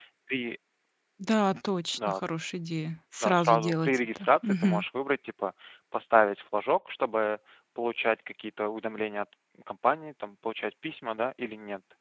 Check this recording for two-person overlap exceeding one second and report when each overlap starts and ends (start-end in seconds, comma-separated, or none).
3.2-4.8